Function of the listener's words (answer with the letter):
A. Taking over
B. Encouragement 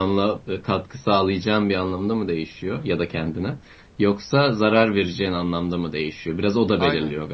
B